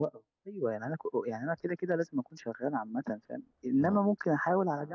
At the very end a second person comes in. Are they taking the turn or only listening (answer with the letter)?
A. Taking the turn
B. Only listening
B